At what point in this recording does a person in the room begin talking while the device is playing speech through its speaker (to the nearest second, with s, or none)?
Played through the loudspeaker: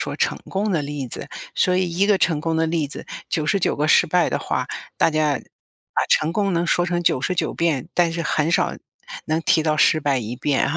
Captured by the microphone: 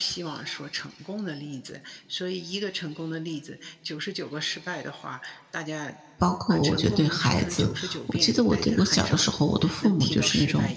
6 s